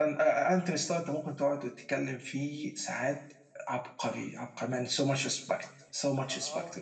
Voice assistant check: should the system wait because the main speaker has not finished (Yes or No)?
No